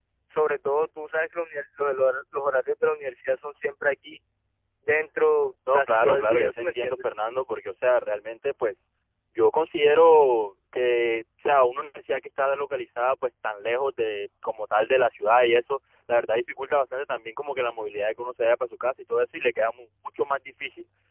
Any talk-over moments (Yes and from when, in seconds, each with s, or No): Yes, from 5.7 s